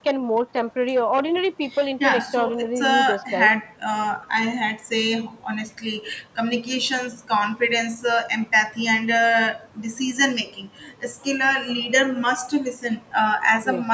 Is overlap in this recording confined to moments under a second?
No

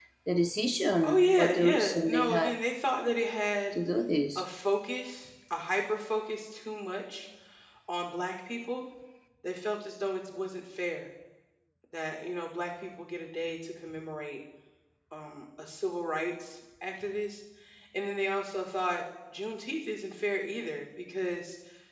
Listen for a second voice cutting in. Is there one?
Yes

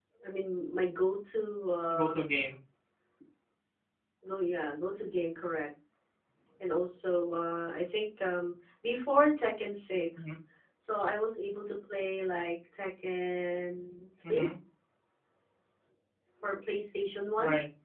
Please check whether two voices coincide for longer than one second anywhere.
No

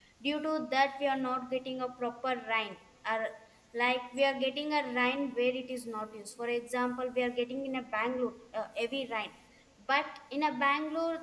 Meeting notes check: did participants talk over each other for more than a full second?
No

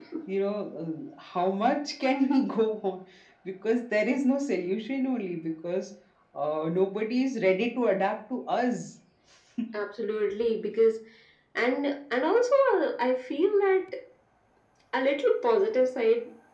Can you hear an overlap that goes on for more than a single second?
No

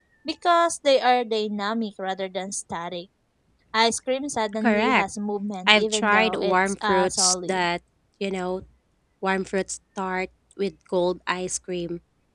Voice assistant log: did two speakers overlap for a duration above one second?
Yes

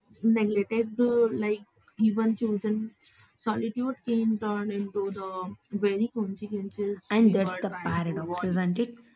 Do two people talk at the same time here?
Yes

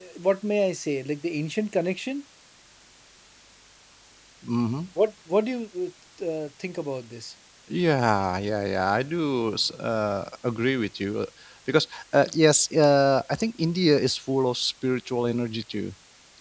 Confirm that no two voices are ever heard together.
Yes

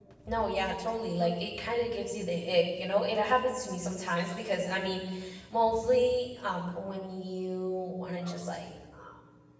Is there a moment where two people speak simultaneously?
No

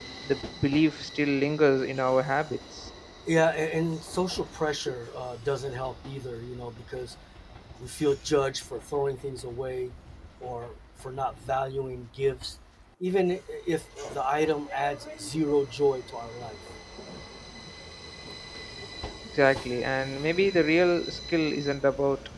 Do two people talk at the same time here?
No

